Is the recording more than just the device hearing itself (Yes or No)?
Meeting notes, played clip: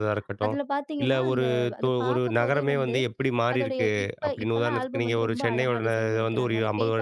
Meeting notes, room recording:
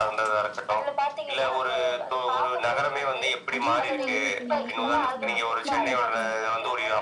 Yes